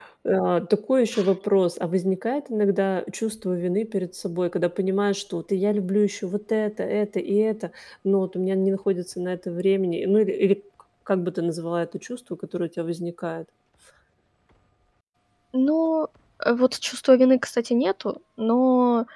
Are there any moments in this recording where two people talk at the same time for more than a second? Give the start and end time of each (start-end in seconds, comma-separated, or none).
none